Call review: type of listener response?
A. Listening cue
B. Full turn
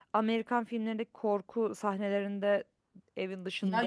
B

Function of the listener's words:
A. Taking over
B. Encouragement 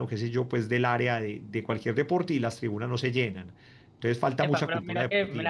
A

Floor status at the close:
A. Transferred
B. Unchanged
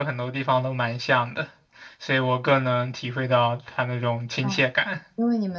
A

